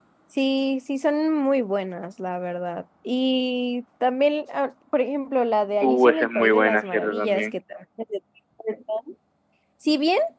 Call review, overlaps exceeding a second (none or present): present